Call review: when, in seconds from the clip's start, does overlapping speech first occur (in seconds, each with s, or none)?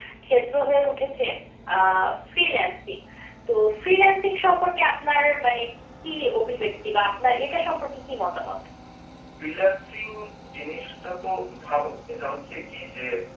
none